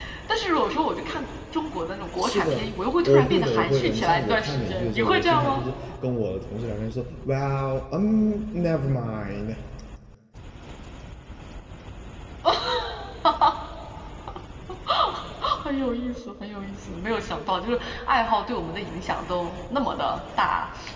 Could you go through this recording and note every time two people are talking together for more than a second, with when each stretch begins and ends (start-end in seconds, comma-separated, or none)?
3.0-5.7